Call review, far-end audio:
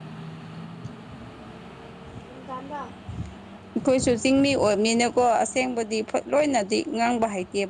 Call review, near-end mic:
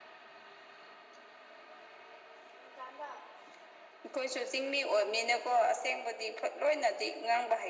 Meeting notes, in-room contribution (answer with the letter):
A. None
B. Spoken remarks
A